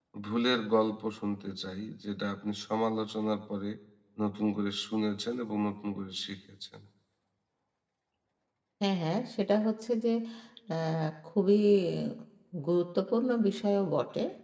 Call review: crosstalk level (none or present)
none